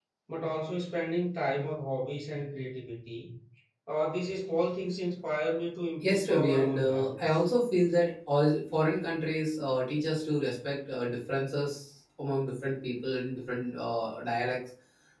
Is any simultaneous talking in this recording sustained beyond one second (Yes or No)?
Yes